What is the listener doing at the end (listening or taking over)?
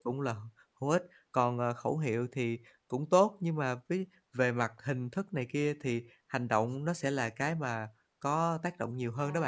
taking over